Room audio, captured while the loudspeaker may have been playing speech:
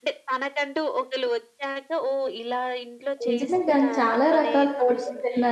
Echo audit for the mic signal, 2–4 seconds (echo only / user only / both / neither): both